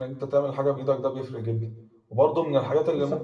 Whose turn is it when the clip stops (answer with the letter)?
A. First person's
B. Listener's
A